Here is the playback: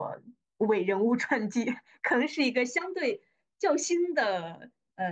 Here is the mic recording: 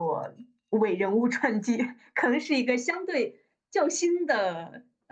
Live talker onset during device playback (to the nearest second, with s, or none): none